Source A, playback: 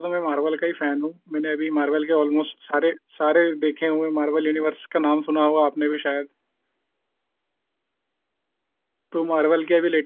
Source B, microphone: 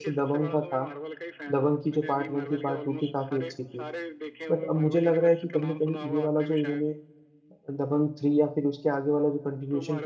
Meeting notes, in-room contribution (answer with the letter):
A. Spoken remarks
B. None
A